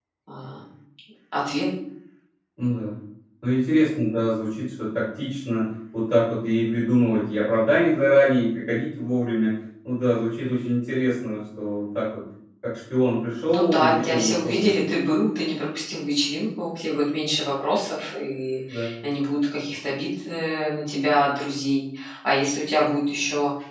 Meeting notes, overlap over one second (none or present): present